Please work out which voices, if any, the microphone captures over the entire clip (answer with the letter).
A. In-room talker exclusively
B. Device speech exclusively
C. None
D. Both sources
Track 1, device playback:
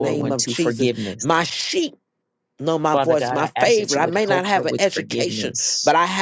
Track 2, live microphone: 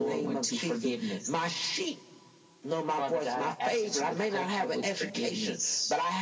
B